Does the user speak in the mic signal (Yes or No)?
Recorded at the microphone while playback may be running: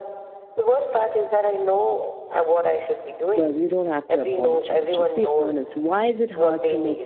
Yes